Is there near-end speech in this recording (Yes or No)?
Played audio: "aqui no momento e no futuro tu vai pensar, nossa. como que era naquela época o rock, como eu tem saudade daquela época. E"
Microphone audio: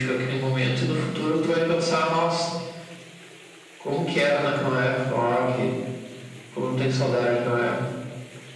No